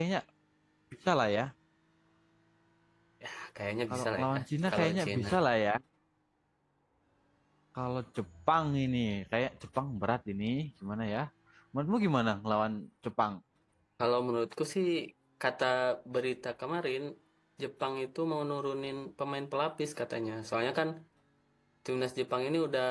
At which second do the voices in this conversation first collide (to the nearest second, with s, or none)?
4 s